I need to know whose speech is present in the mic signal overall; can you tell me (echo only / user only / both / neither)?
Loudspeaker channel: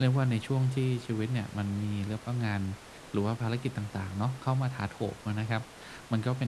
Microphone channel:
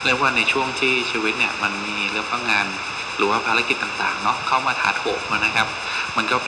echo only